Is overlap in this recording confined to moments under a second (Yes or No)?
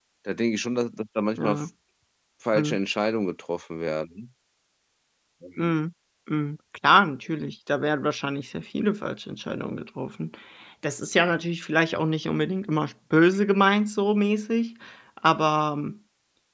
Yes